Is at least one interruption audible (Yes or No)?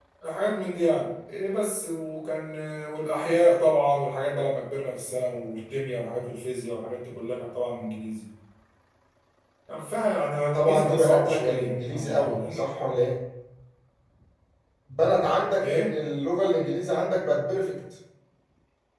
Yes